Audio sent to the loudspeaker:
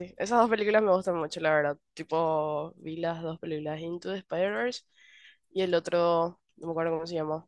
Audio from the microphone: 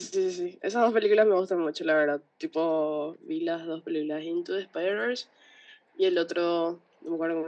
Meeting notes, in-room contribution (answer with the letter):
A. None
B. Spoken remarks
A